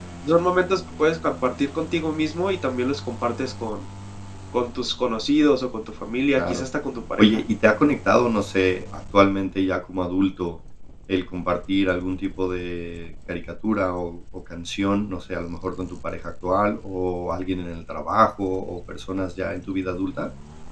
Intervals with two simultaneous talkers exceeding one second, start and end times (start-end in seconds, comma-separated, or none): none